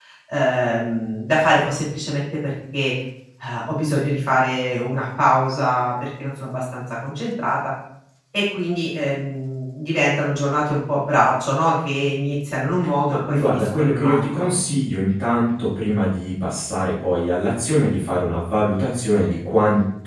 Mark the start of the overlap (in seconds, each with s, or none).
13.1 s